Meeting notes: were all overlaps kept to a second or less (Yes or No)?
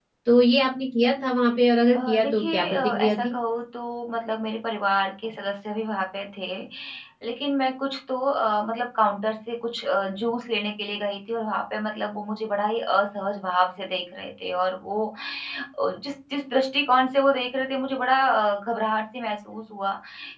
No